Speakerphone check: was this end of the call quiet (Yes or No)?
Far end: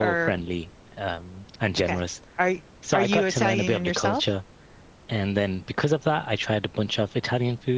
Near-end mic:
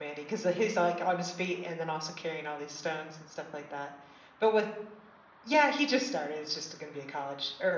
No